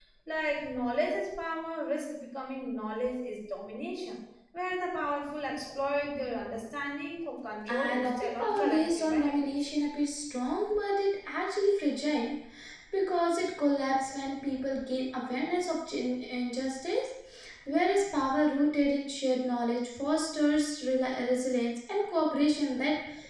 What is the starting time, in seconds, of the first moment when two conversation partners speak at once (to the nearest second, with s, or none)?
8 s